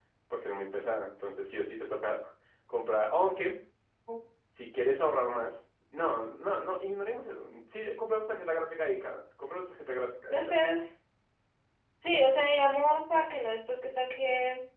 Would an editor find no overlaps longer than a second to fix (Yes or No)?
Yes